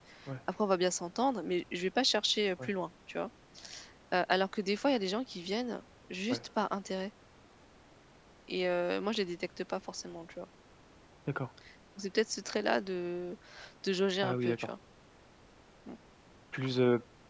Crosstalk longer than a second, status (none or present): none